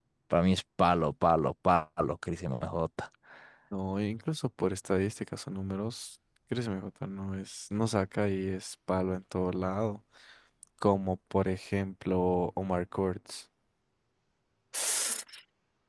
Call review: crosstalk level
none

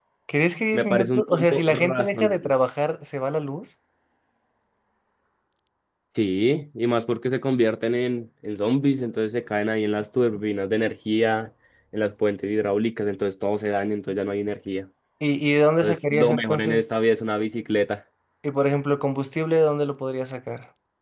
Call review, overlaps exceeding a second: present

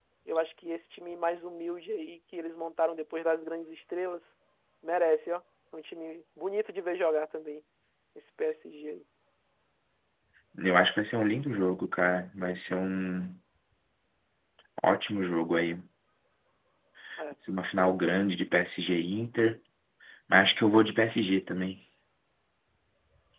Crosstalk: none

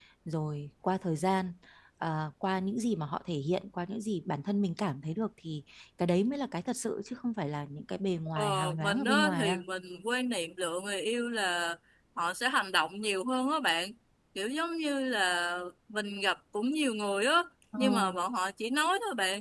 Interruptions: present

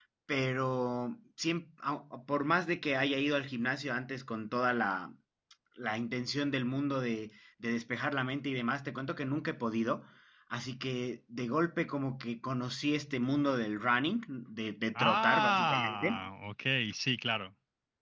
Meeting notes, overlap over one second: present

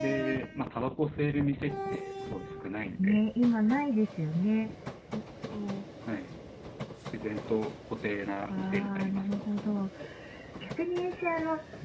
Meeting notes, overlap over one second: present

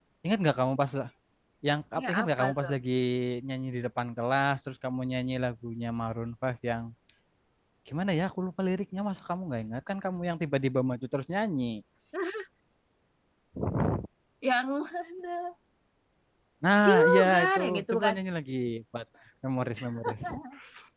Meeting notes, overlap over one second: present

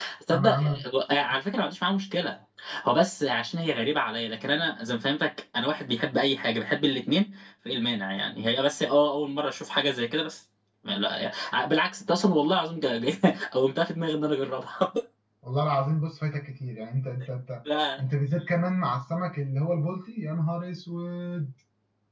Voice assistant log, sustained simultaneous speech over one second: none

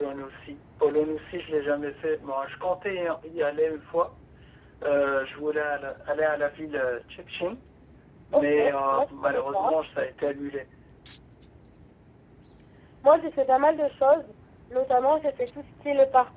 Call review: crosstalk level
present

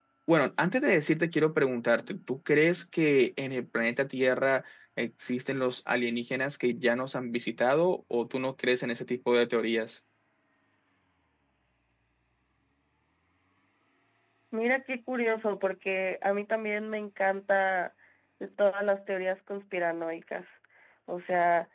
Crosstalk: none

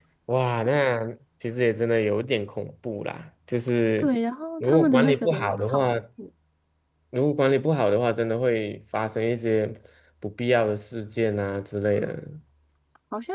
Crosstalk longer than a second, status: present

